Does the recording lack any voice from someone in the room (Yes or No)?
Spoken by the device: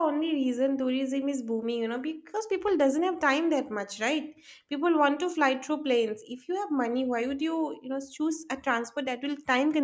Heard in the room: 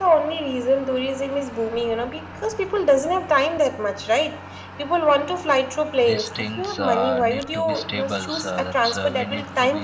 No